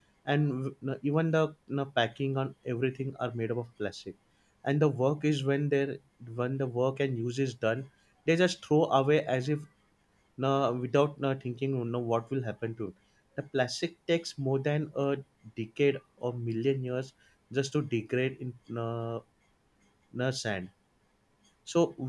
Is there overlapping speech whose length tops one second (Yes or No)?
No